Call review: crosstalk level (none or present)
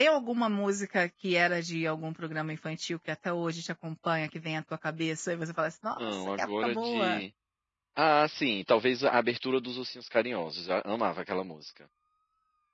present